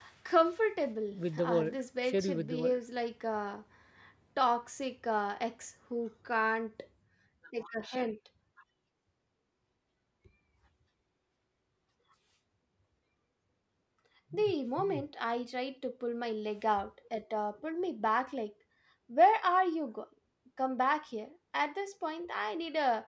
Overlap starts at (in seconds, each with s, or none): 1.1 s